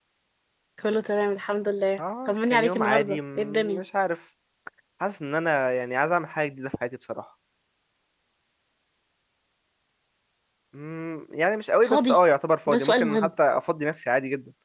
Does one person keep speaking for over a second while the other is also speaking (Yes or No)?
Yes